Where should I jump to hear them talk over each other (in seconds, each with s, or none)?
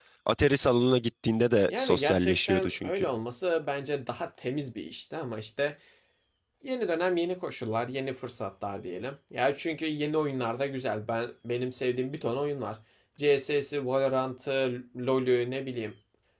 1.7 s